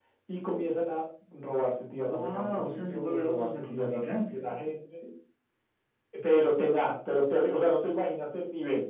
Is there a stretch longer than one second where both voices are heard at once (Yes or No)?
Yes